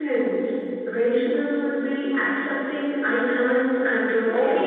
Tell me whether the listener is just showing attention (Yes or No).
No